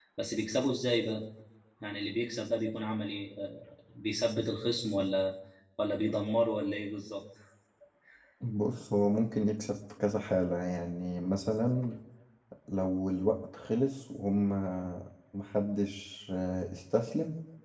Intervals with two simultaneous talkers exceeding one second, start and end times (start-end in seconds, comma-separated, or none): none